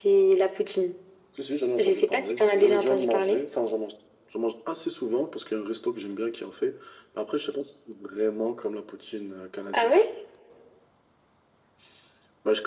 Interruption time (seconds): 1.8 s

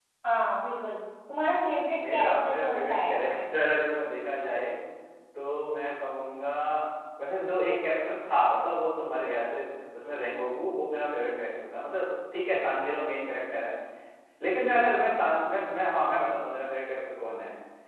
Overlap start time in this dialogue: 1.9 s

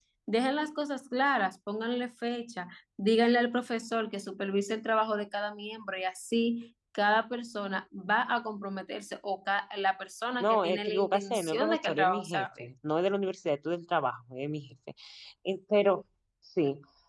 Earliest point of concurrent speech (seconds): 10.4 s

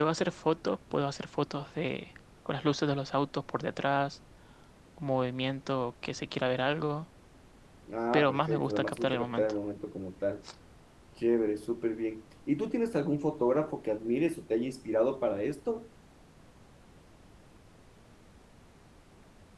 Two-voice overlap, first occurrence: 8.1 s

